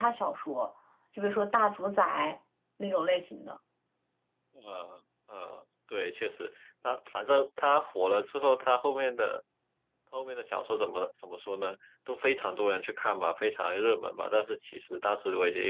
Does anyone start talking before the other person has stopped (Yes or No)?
No